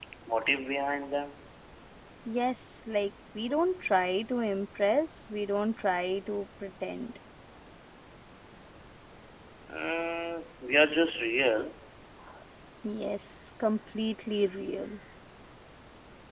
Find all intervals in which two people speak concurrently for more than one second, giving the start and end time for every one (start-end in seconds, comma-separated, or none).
none